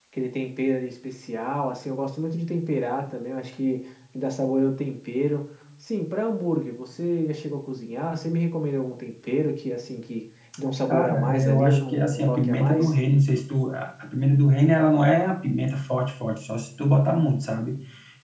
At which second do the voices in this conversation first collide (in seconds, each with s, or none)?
10.8 s